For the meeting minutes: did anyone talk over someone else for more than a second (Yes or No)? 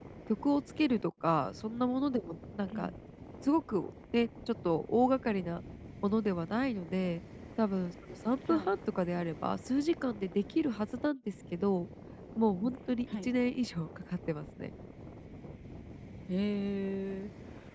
No